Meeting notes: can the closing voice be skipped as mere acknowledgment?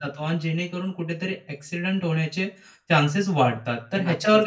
Yes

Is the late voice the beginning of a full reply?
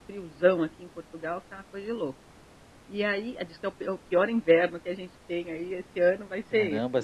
Yes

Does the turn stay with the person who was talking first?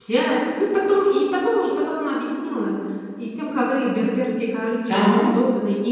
Yes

